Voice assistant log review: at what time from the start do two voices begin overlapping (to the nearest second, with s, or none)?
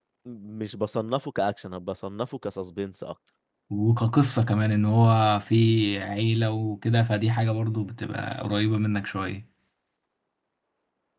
none